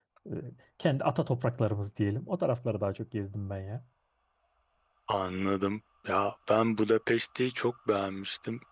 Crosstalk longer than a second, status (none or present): none